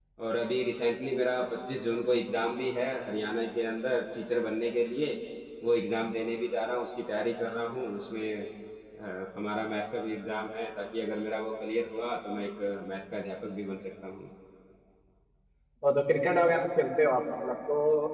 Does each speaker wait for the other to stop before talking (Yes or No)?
Yes